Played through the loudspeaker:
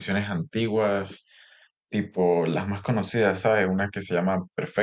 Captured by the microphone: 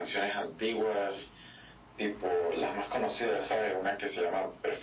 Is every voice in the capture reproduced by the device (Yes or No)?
Yes